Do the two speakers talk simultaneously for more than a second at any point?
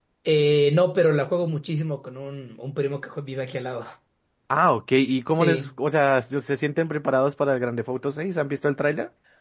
No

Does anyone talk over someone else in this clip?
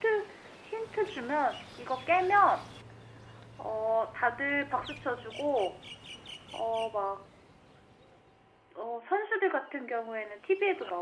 No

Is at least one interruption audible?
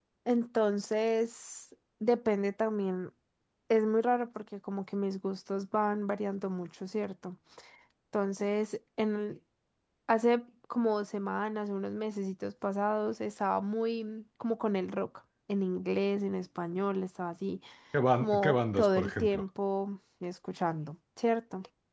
Yes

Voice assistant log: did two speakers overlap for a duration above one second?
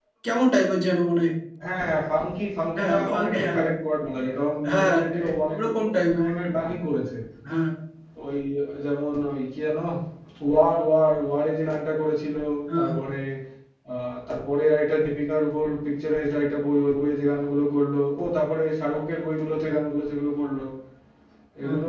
Yes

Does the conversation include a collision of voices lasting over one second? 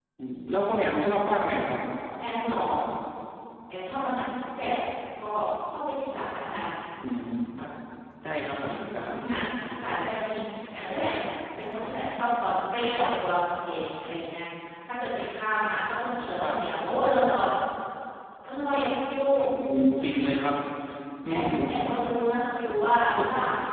No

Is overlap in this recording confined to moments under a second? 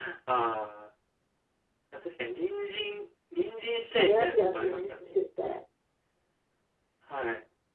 No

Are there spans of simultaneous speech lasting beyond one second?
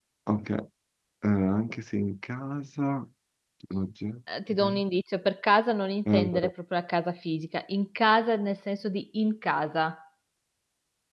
No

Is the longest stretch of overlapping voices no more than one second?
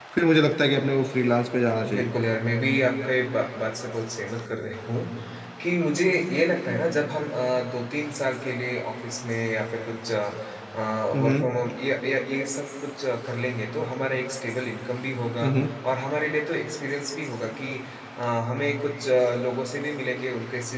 Yes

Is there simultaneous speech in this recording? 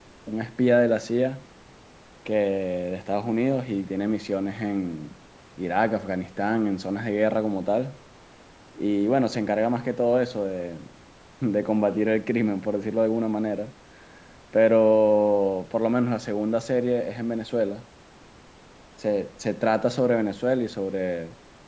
No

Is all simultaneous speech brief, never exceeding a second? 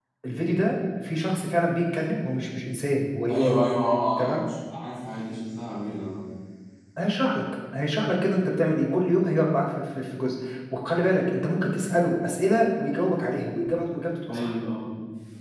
Yes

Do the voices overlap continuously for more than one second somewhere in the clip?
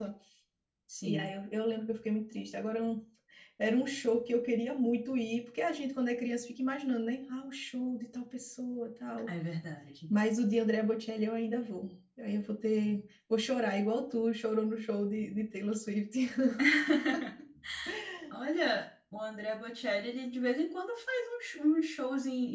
No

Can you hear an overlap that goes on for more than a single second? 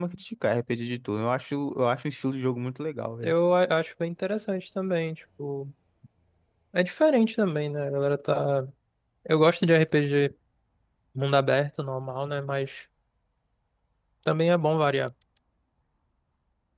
No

